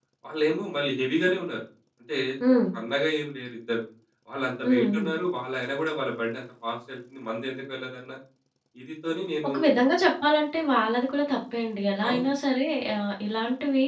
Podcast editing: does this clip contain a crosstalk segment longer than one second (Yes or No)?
No